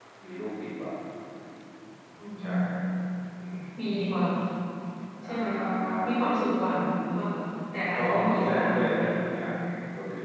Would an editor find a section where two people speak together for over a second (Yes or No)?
Yes